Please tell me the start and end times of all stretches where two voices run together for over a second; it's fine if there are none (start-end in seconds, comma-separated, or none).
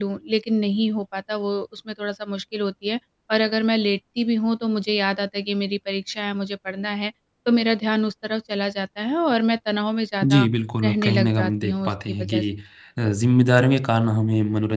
10.8-12.4